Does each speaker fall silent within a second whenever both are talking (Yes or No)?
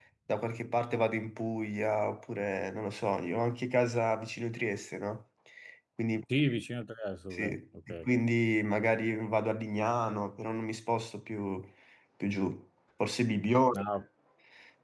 Yes